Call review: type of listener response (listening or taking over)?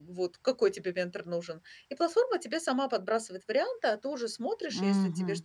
listening